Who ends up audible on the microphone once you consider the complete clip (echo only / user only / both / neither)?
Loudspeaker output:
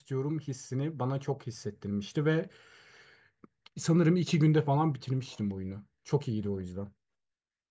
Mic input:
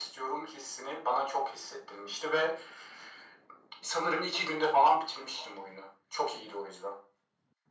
echo only